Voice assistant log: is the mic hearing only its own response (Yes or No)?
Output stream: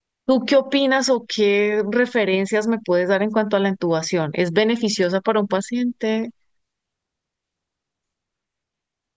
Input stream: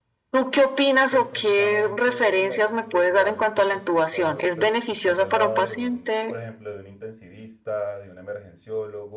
No